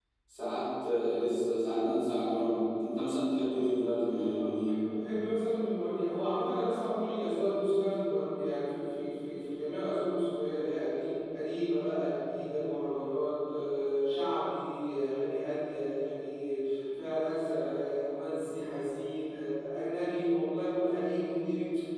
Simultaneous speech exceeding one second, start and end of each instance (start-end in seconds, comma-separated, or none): none